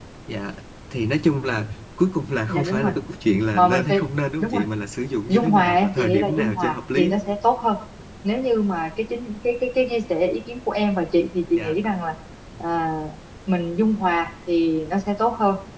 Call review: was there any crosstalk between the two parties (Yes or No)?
Yes